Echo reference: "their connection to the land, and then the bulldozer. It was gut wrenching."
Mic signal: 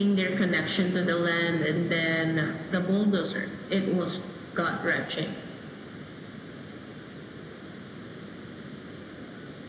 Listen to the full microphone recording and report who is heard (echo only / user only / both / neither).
echo only